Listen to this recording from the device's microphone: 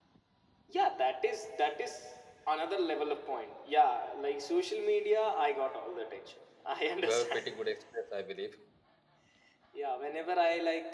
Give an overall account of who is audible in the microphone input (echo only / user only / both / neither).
both